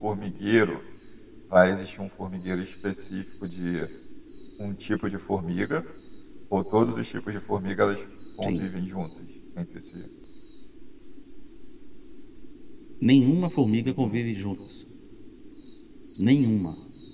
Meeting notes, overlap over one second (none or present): none